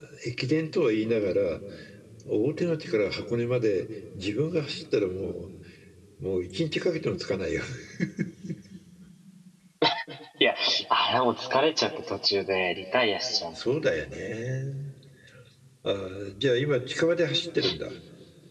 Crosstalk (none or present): none